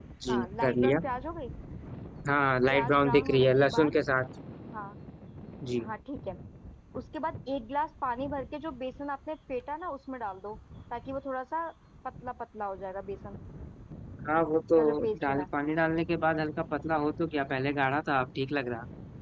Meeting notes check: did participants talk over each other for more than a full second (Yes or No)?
Yes